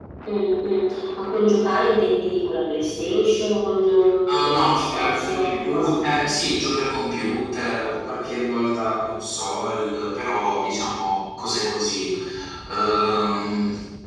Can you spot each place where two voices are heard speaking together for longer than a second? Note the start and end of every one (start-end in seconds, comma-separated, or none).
4.3-6.0